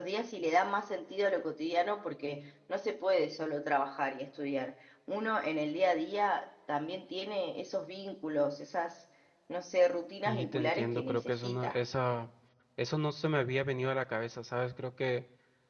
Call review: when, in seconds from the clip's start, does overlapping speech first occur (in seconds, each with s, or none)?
10.2 s